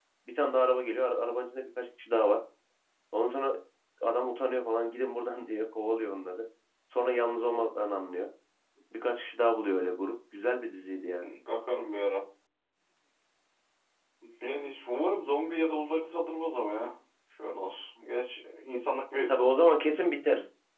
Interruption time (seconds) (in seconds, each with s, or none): none